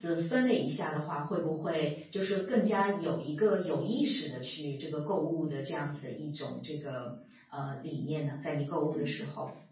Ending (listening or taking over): taking over